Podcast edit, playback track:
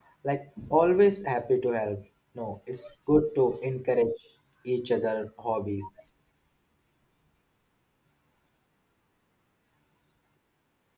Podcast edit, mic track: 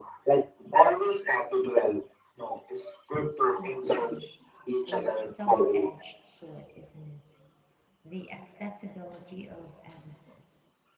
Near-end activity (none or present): present